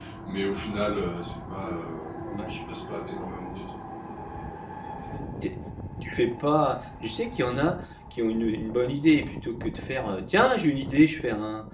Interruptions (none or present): none